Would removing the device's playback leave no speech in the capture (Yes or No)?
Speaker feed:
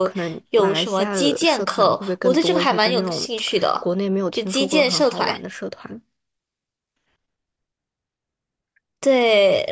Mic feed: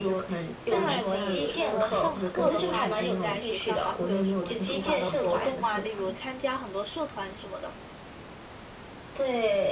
No